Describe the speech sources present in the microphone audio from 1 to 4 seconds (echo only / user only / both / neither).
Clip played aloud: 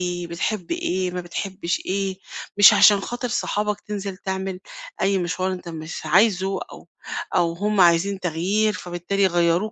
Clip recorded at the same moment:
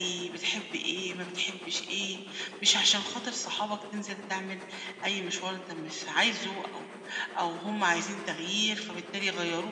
echo only